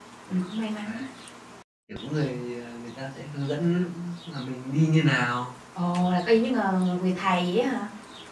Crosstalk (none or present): none